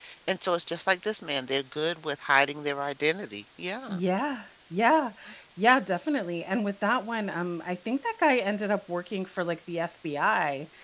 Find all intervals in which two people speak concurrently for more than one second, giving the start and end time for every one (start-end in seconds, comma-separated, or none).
none